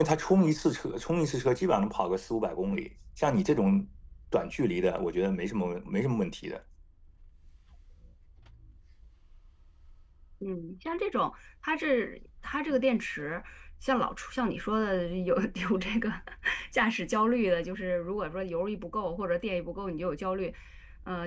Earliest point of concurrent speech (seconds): none

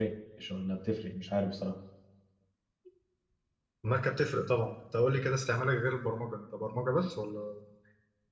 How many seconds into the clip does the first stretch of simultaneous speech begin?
none

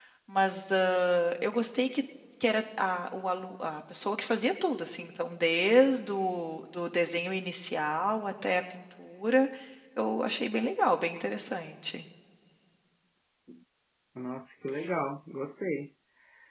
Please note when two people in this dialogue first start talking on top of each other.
none

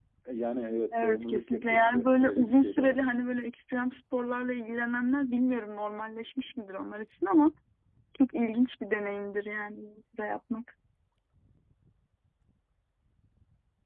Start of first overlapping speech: 0.9 s

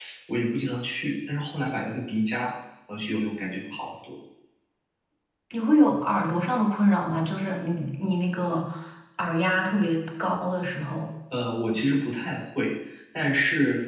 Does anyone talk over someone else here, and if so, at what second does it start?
none

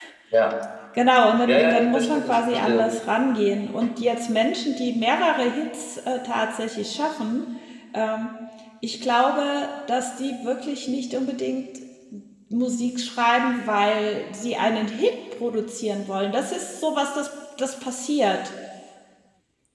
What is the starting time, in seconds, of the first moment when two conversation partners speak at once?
1.5 s

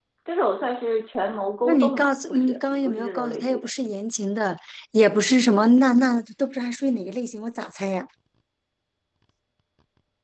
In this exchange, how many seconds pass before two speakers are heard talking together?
1.6 s

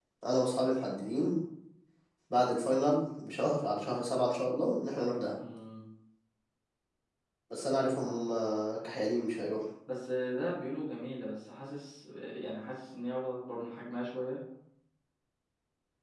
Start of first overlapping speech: none

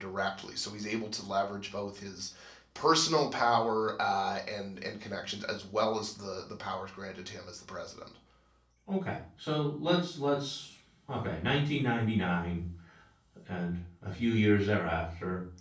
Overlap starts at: none

